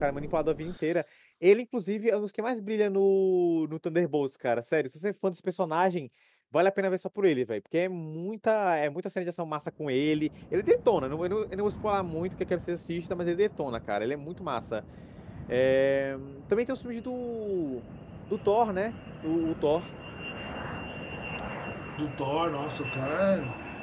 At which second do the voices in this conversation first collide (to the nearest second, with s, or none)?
none